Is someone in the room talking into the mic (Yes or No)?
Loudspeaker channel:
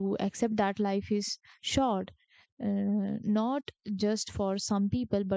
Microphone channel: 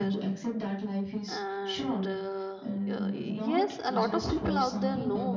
Yes